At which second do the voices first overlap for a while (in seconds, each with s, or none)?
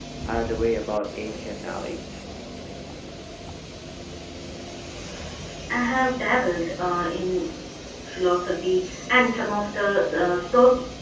none